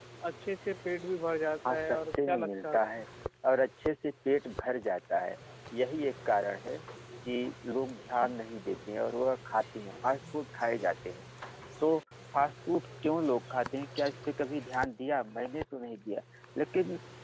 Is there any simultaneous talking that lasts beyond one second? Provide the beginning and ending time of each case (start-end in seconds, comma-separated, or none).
1.7-3.0